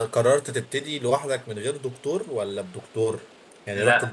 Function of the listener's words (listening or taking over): listening